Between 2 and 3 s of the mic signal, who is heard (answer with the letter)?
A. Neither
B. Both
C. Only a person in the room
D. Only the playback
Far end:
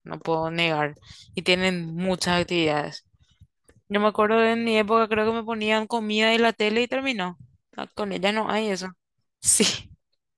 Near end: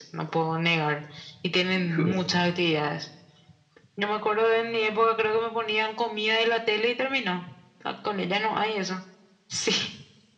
B